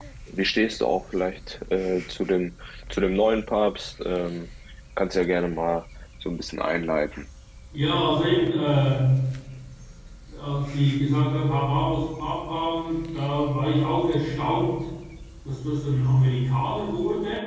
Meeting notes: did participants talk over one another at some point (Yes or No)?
No